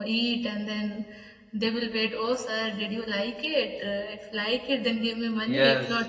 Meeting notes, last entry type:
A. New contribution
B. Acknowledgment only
A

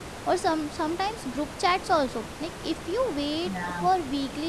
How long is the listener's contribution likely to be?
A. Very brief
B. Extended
A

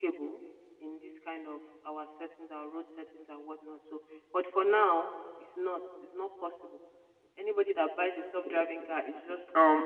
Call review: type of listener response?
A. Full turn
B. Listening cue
A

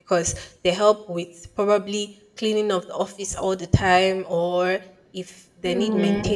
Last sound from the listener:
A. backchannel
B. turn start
A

